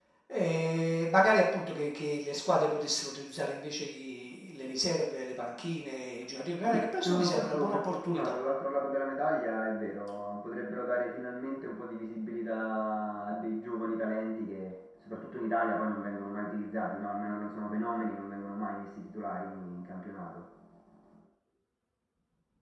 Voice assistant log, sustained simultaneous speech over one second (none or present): present